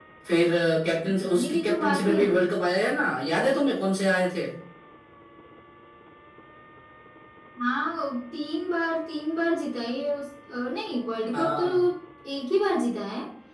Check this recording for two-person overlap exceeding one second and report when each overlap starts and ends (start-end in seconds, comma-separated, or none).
1.2-2.5